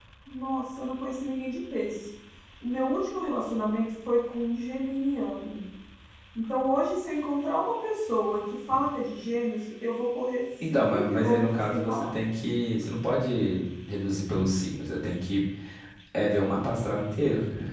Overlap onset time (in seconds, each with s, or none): 10.6 s